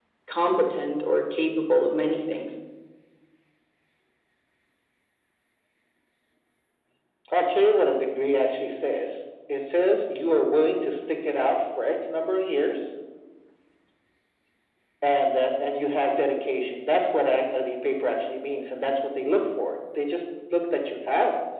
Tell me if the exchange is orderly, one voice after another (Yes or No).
Yes